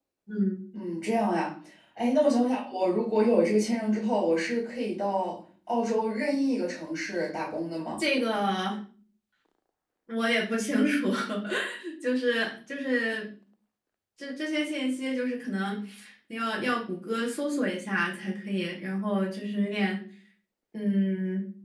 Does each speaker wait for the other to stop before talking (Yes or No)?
Yes